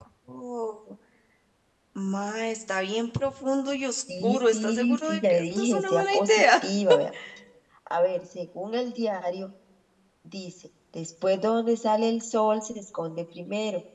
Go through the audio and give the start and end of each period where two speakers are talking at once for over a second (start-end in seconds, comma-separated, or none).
4.2-6.4